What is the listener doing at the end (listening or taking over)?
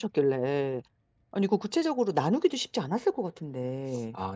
taking over